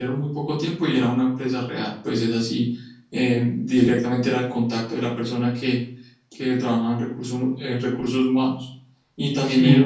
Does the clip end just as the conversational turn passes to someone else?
No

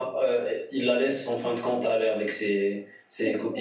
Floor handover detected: No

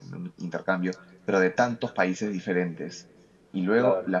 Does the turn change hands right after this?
No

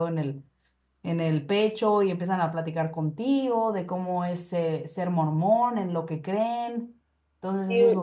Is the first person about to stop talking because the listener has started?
Yes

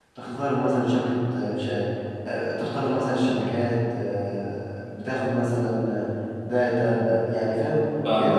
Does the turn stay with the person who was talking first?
No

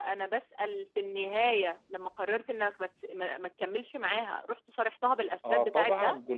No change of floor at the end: No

